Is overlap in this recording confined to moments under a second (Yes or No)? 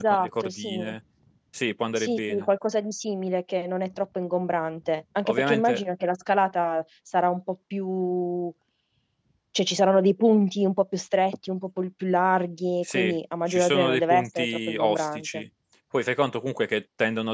No